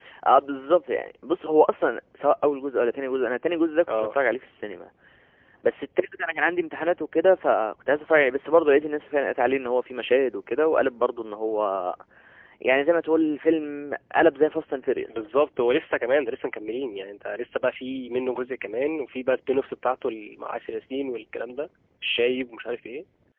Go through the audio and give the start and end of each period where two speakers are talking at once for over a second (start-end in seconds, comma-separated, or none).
none